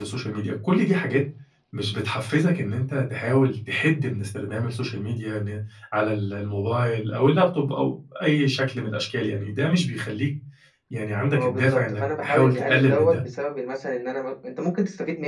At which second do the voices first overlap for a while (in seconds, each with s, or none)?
11.3 s